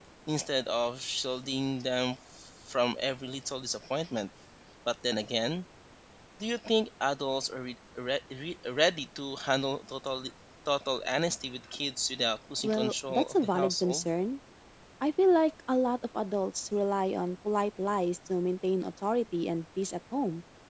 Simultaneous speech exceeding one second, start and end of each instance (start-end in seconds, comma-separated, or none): 12.6-14.1